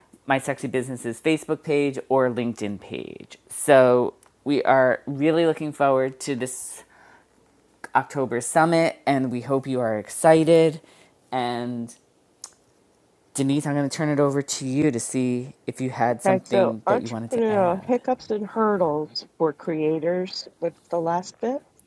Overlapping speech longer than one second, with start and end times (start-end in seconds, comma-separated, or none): 16.2-17.8